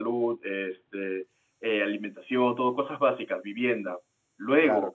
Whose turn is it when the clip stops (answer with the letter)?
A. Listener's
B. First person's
B